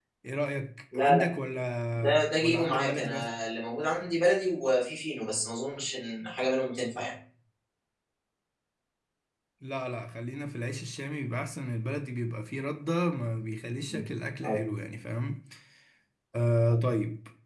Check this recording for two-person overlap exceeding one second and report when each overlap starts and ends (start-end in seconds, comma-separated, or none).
1.9-3.3